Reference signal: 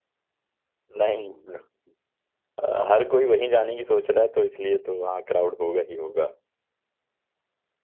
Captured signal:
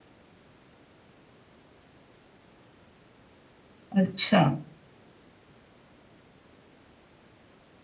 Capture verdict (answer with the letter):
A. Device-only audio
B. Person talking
B